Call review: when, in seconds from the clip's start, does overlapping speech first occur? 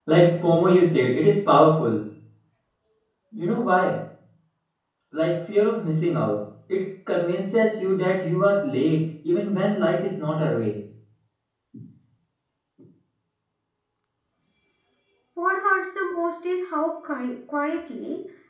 none

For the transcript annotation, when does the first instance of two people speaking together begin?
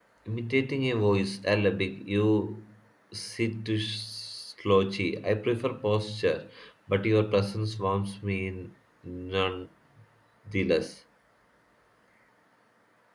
none

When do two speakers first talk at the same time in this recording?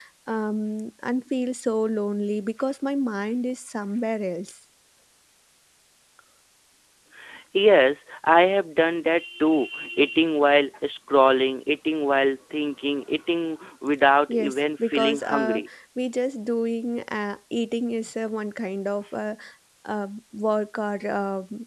14 s

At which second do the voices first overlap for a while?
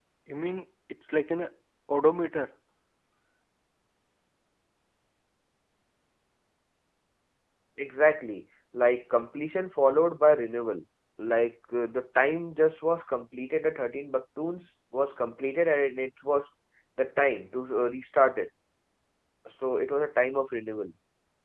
none

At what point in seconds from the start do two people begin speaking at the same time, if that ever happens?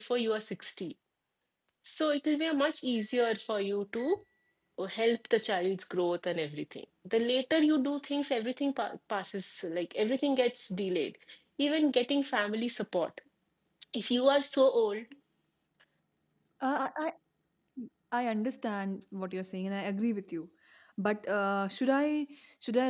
none

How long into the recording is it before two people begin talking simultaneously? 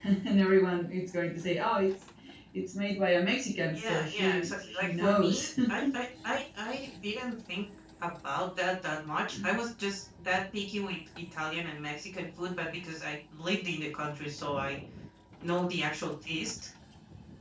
4 s

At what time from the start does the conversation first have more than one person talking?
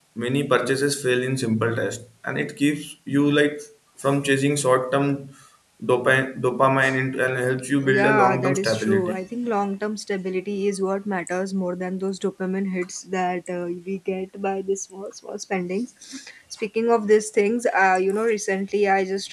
8 s

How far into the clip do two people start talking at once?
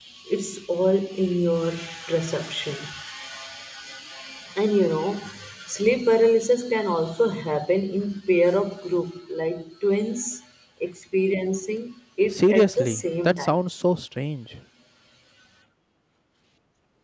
12 s

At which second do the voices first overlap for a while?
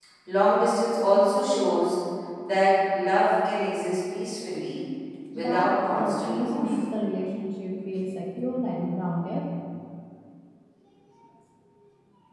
5 s

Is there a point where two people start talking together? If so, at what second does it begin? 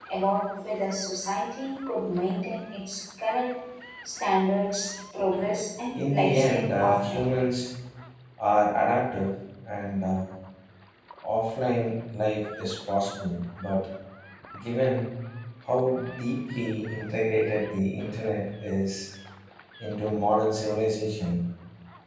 6 s

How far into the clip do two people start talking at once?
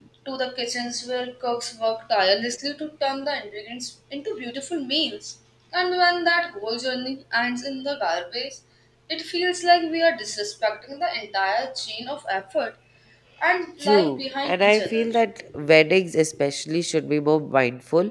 14 s

